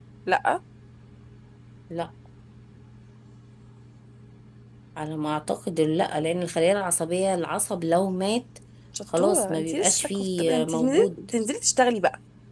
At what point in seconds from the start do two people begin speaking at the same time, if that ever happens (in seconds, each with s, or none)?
9.2 s